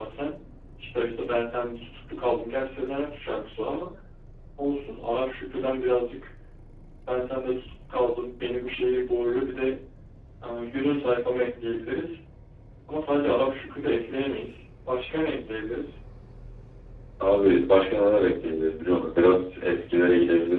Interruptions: none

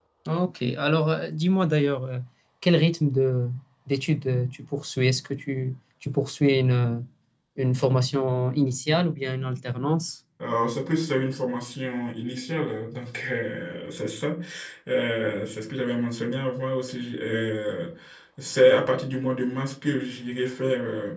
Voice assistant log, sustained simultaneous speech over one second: none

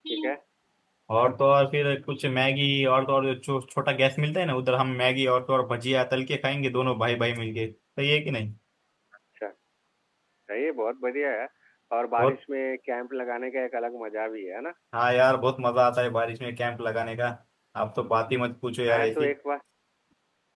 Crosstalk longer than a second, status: none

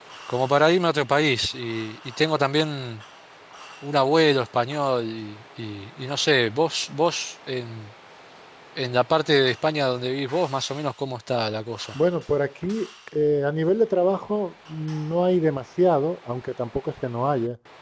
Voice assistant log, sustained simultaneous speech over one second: none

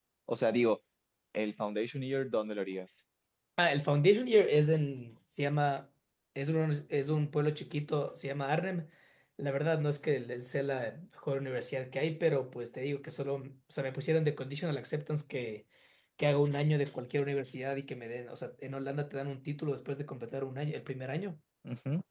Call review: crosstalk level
none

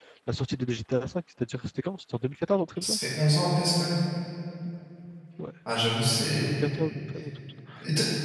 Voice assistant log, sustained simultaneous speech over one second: none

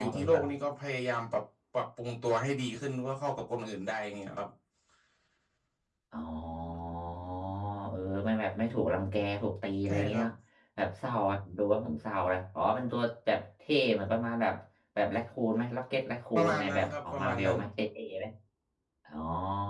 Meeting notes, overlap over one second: present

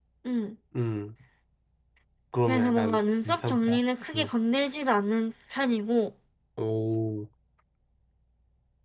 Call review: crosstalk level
present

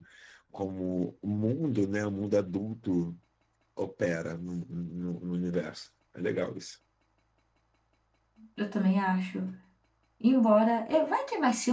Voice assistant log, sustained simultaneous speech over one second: none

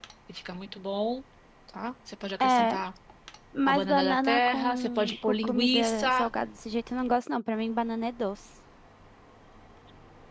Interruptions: present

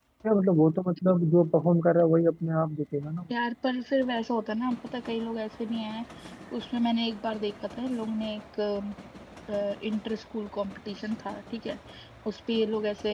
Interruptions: none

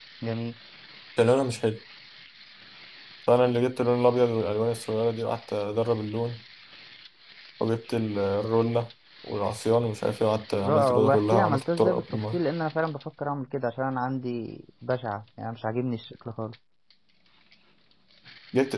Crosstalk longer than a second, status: present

